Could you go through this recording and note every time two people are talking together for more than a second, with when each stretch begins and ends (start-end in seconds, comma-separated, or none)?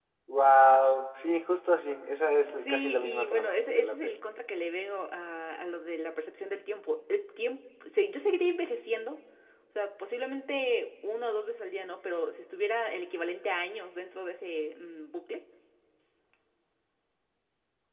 2.5-4.2